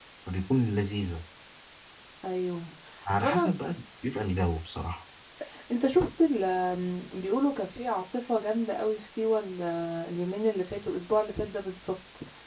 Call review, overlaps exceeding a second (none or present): none